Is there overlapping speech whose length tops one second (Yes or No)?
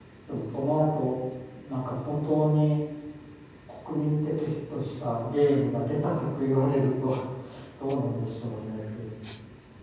No